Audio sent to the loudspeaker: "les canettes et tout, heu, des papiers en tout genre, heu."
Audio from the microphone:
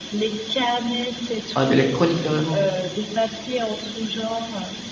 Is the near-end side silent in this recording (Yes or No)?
No